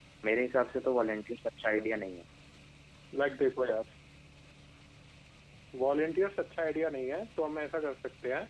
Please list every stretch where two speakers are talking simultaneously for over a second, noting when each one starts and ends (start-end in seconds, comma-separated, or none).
none